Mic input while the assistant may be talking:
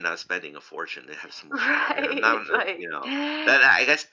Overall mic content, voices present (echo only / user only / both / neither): echo only